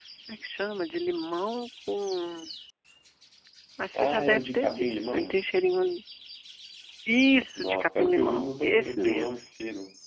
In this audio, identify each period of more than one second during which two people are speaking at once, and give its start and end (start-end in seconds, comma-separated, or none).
3.9-5.4, 7.6-9.3